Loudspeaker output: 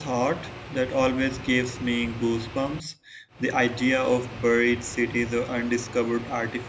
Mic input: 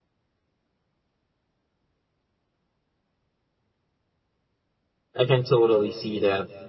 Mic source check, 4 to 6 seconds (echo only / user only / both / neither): user only